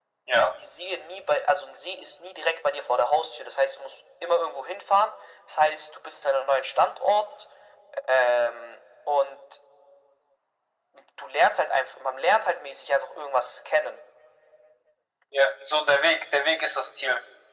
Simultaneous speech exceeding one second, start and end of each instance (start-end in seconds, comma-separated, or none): none